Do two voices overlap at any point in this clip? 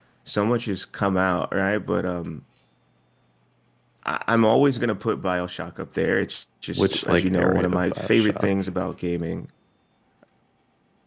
Yes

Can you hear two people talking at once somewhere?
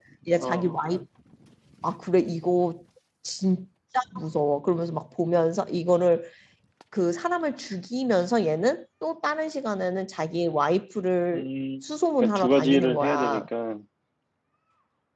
Yes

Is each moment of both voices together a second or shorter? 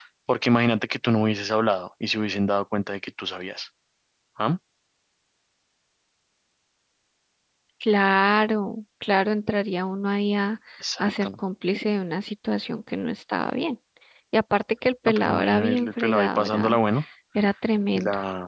No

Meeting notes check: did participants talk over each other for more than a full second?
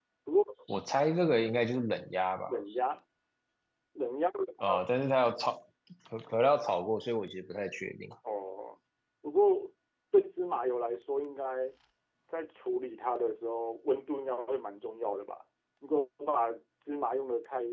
No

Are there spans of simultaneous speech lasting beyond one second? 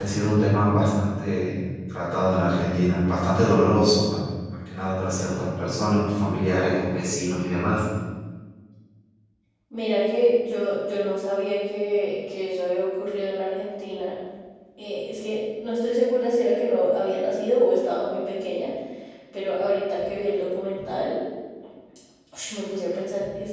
No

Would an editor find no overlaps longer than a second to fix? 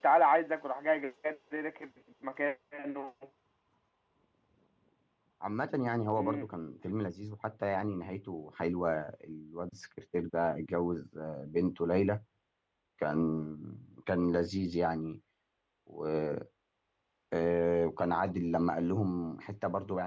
Yes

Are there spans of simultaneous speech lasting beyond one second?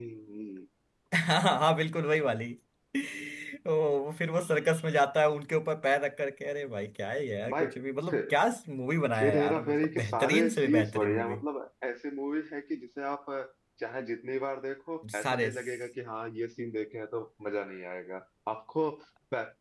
Yes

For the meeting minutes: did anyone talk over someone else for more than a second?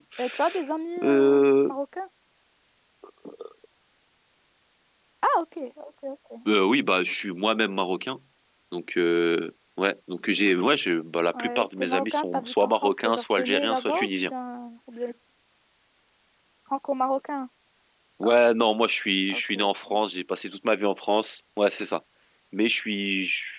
Yes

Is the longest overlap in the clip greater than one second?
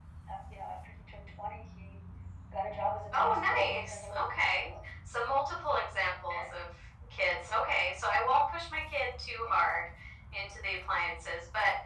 Yes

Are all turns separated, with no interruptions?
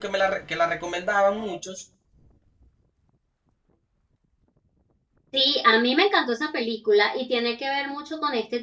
Yes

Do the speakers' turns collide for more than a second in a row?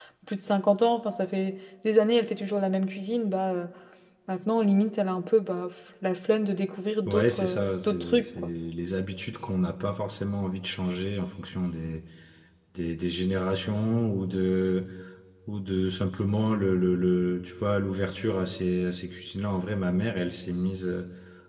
Yes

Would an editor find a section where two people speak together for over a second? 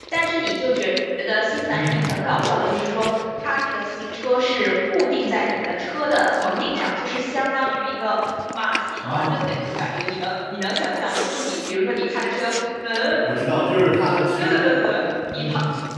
No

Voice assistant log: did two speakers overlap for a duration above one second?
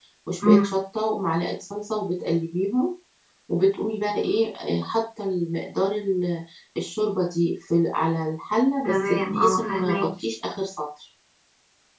Yes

